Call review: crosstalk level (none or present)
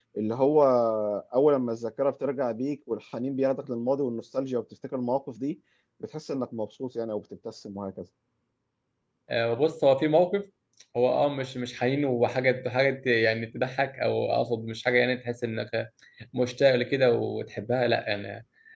none